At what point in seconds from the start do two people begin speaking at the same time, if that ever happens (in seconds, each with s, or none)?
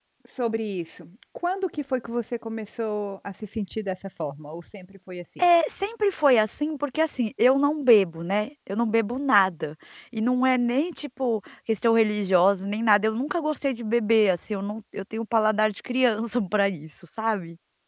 none